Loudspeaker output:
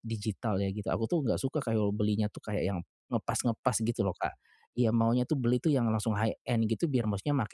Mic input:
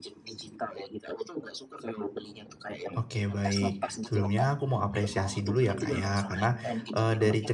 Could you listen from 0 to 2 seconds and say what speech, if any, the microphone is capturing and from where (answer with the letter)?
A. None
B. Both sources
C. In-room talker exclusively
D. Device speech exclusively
D